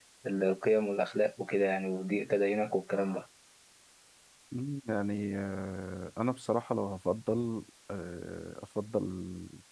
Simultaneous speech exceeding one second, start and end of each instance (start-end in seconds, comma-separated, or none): none